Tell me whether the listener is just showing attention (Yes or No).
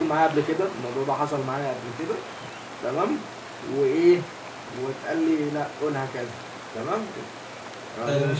No